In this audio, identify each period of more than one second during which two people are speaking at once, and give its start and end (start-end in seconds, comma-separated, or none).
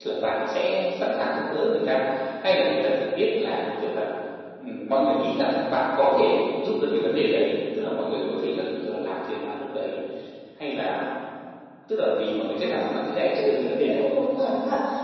12.6-14.0